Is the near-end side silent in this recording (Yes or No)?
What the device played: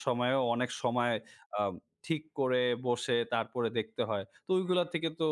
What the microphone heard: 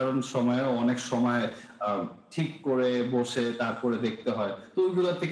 Yes